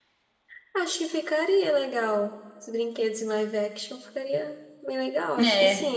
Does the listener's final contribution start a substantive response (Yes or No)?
Yes